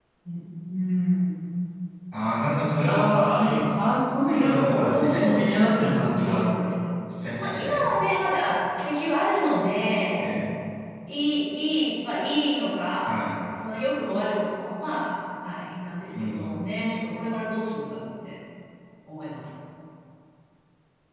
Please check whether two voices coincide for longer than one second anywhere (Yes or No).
Yes